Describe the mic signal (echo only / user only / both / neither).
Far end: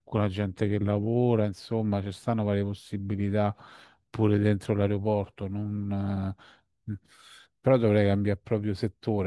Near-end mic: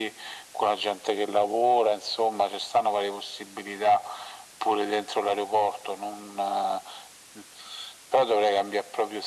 echo only